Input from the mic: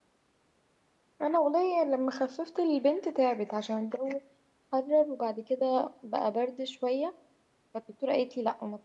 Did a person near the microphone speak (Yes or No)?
Yes